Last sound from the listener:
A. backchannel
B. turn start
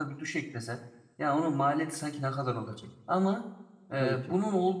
A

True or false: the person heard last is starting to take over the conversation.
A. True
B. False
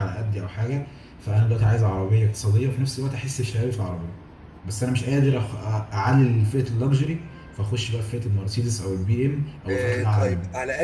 A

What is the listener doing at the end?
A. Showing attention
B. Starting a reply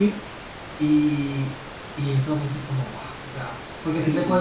A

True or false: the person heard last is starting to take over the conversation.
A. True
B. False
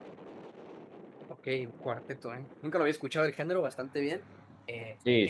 B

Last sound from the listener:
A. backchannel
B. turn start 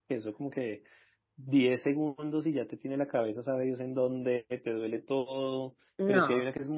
A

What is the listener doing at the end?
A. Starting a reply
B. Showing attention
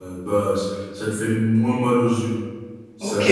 A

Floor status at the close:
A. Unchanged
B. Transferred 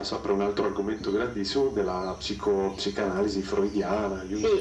B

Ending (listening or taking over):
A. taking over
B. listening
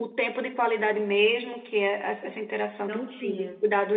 B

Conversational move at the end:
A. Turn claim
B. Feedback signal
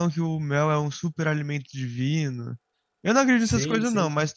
B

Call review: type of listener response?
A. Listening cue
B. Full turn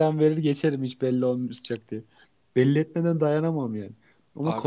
A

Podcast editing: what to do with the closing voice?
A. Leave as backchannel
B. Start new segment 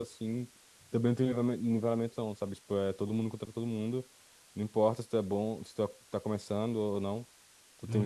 A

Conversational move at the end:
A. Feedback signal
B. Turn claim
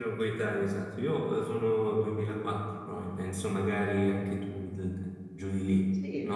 B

